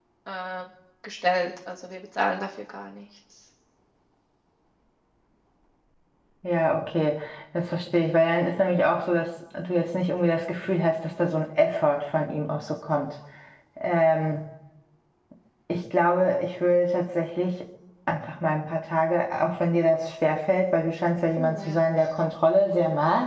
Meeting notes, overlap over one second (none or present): none